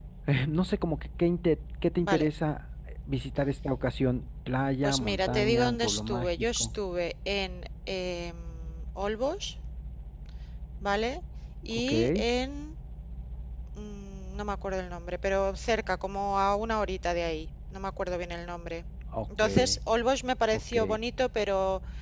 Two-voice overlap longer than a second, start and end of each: 4.8-6.7

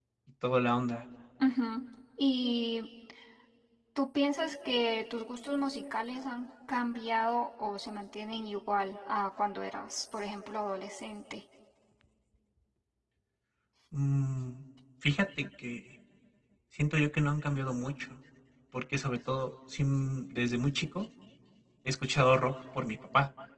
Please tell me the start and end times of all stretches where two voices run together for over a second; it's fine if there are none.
none

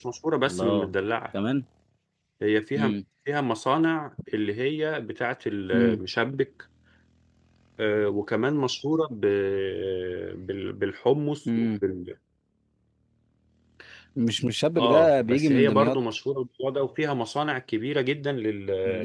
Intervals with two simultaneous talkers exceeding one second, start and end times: 14.8-16.0

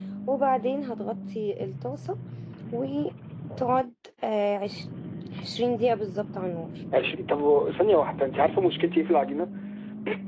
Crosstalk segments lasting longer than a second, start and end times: none

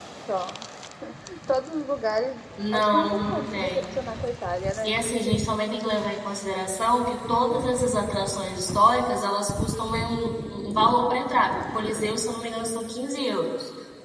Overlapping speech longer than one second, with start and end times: 2.7-4.0

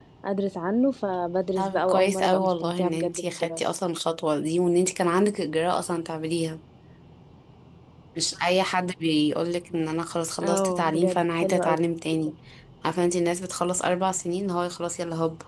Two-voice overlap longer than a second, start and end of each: 1.6-3.6, 10.4-11.8

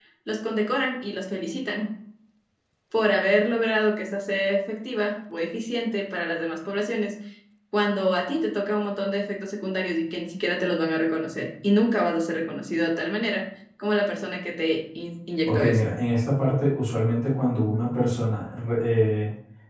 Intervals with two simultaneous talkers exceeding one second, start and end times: none

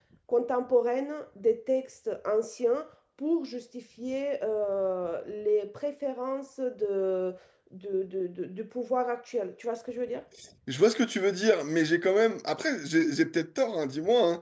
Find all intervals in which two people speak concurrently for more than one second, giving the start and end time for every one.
none

